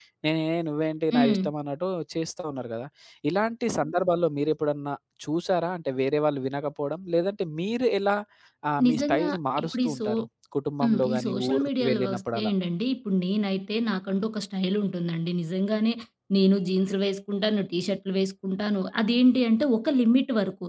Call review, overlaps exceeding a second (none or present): present